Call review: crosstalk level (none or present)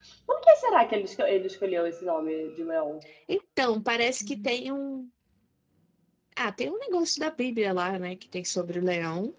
none